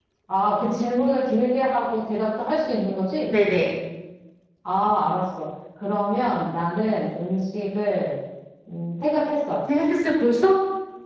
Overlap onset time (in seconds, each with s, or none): none